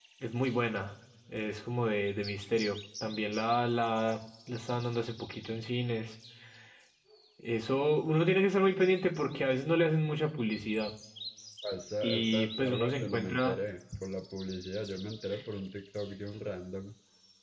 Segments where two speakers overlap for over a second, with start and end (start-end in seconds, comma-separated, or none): 12.0-13.6